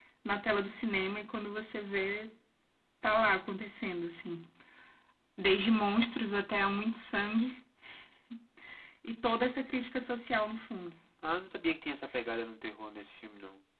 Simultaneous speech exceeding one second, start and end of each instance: none

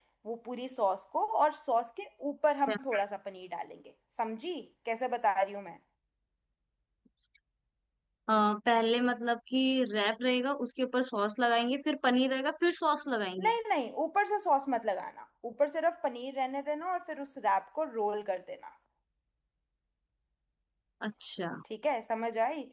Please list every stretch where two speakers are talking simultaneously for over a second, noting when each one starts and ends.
none

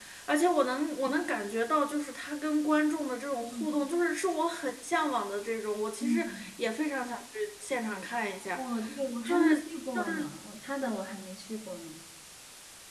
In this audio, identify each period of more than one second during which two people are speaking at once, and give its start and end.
none

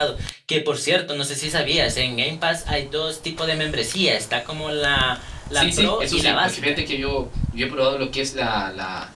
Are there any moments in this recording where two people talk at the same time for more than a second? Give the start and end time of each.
5.5-6.8

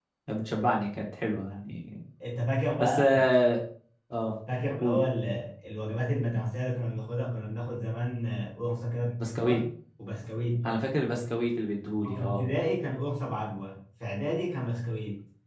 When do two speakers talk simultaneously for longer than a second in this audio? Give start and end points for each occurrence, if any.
none

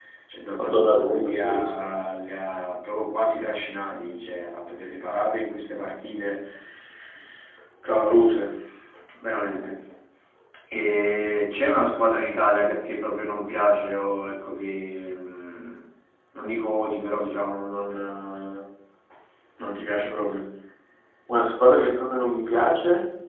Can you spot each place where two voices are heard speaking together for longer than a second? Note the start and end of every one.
0.6-1.8

